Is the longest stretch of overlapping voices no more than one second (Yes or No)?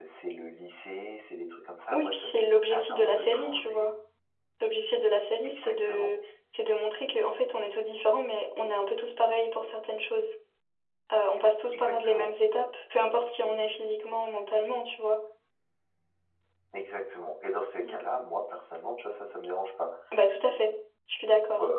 No